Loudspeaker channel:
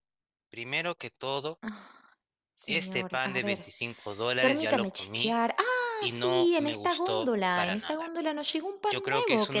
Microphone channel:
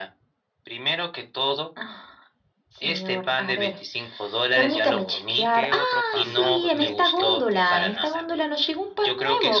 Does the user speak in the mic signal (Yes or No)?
Yes